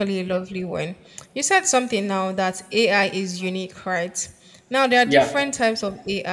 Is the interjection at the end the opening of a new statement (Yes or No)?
No